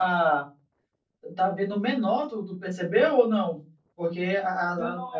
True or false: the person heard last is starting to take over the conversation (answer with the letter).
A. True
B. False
A